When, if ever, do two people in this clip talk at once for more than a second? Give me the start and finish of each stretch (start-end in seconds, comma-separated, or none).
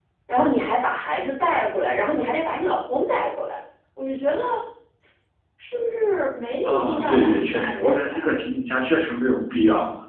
6.6-8.3